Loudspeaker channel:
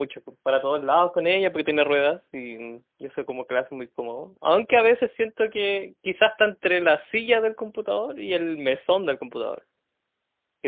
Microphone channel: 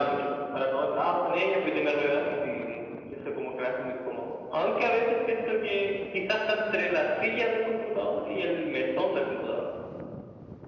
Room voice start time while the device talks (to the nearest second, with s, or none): none